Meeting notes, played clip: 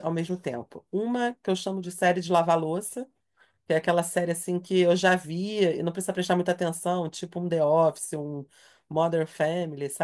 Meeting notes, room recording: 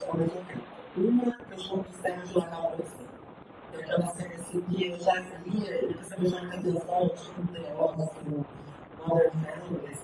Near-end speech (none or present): none